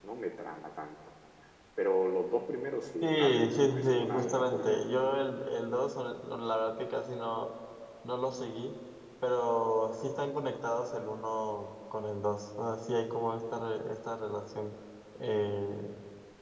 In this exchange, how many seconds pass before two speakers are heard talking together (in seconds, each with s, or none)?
3.0 s